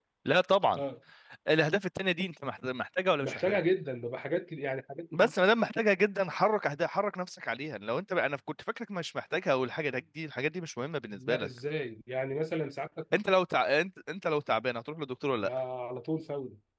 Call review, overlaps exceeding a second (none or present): none